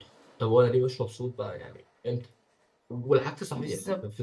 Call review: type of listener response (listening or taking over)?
listening